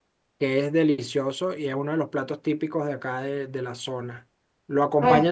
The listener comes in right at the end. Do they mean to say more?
No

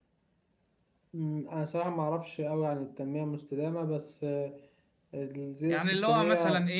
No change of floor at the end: No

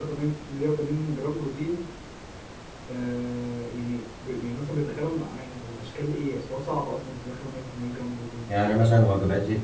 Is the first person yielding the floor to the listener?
Yes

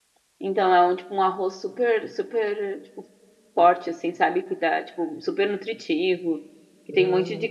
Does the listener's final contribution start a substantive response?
No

